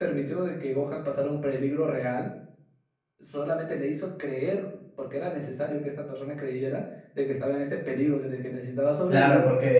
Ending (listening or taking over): taking over